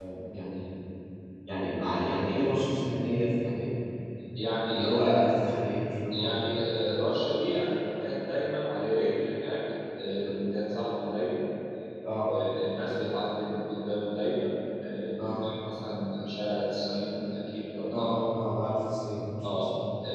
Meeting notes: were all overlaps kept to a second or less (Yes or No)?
Yes